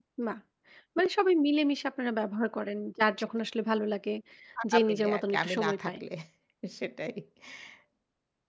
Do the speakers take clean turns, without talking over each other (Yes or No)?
No